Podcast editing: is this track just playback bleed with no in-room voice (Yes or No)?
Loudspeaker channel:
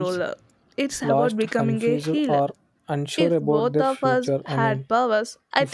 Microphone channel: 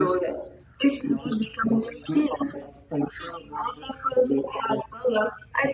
Yes